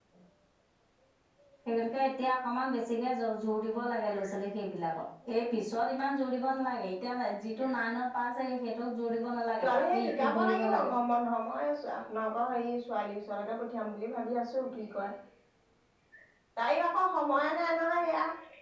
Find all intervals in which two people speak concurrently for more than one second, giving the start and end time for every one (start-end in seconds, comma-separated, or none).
9.6-10.9